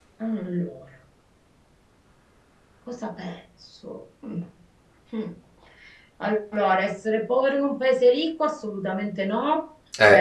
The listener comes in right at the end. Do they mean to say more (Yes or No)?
No